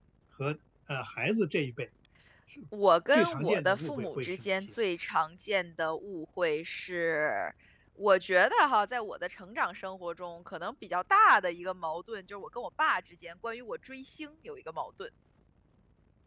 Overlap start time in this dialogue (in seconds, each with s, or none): 3.1 s